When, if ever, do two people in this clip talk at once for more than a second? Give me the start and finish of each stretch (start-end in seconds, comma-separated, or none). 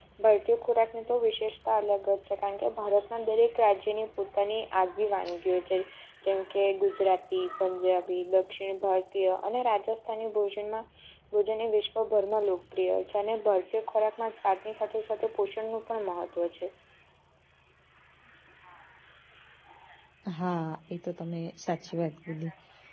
none